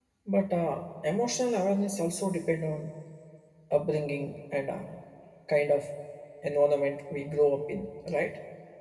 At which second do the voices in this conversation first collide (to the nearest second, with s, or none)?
none